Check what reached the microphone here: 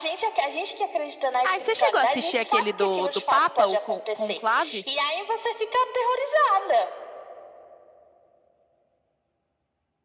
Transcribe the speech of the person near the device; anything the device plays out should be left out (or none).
Ah, você chegou a assistir aquele do, do Papa, o Con- Conclave?